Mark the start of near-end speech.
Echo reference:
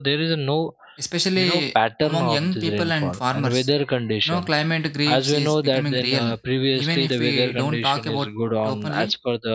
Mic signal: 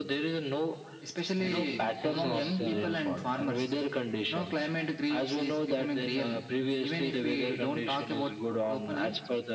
1.4 s

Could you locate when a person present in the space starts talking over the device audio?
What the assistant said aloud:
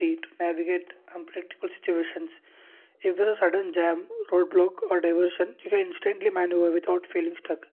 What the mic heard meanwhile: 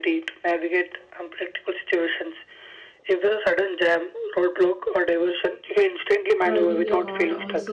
6.4 s

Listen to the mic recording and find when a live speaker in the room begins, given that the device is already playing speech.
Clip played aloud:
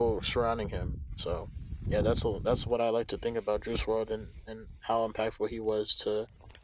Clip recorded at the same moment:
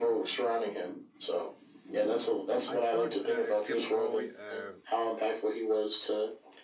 2.6 s

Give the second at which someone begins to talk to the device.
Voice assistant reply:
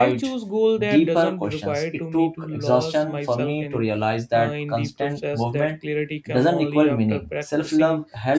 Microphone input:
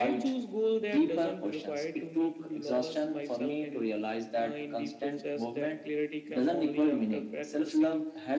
none

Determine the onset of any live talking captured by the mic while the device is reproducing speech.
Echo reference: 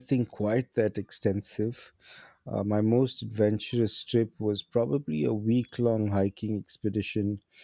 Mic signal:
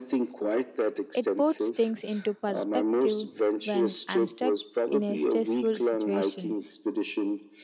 1.1 s

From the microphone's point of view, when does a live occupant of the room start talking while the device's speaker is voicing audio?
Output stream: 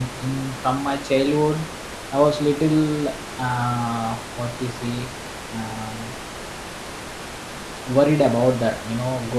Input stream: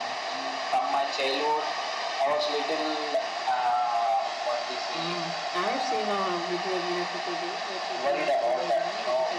4.9 s

